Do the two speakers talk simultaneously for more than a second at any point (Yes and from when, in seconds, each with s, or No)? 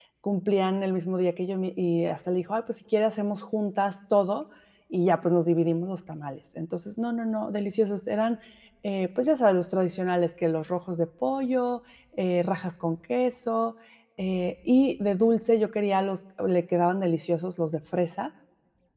No